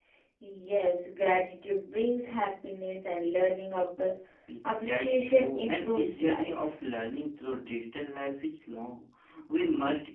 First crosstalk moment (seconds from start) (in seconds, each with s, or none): 4.8 s